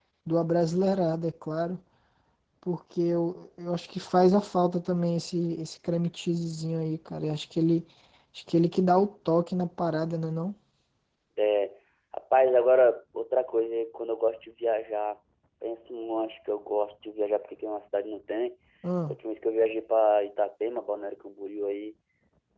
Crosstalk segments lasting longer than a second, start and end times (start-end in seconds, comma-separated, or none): none